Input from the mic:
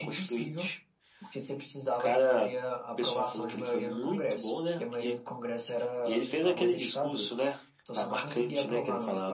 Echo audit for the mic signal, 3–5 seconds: echo only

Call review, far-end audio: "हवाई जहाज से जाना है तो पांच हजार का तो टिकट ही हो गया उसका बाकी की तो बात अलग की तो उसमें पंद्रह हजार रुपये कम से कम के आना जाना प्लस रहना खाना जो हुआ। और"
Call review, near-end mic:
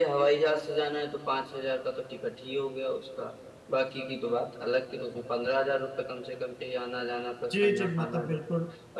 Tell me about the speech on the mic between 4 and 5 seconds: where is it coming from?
echo only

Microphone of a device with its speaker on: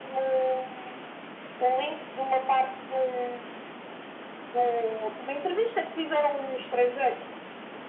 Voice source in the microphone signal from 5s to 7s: echo only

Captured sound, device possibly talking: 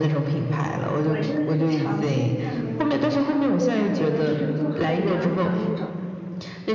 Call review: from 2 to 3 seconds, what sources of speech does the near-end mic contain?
both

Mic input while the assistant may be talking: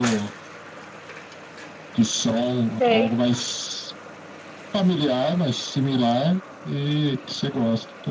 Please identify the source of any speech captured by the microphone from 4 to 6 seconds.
echo only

